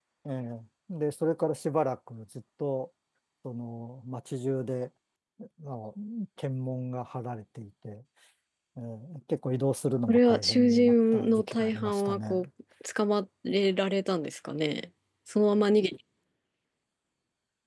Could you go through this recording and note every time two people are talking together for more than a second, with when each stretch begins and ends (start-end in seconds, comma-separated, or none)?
10.1-12.4